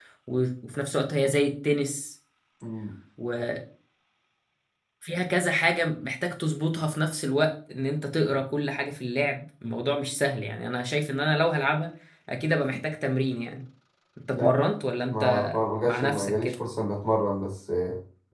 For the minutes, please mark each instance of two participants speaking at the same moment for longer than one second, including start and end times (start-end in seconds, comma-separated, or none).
15.1-16.5